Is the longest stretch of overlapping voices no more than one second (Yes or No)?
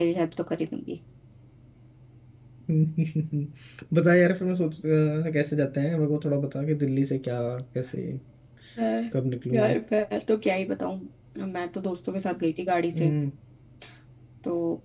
Yes